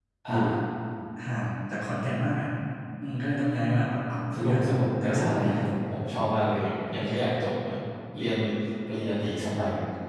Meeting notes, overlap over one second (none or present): present